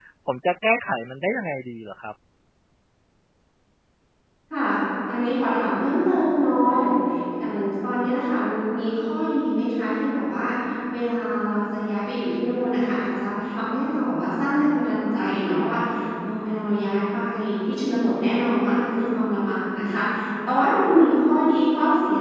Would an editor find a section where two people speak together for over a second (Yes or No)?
No